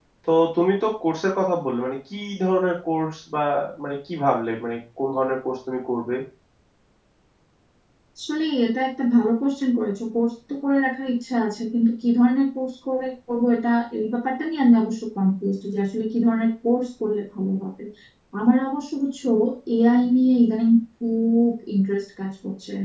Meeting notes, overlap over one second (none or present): none